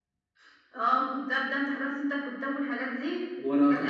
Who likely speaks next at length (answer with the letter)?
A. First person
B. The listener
A